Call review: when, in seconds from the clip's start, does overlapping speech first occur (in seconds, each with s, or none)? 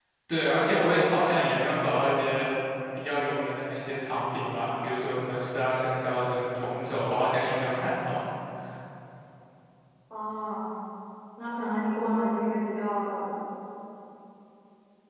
none